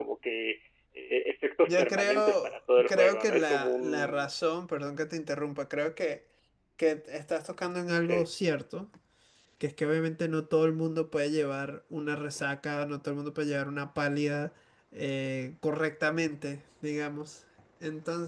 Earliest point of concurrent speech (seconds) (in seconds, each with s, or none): 1.6 s